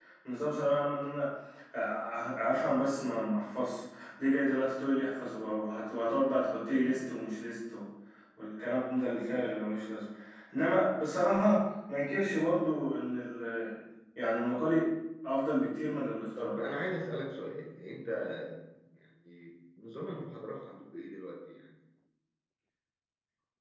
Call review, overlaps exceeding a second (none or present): none